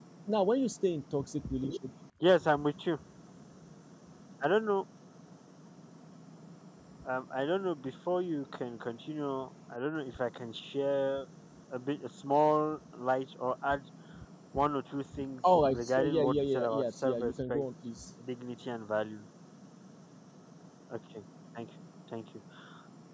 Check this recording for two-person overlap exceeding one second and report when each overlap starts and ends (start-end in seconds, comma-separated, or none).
15.6-17.6